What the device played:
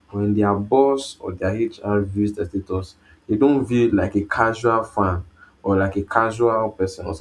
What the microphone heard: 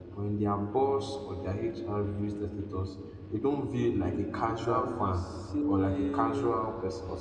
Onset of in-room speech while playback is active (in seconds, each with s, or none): 4.6 s